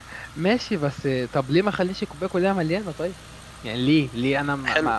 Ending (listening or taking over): taking over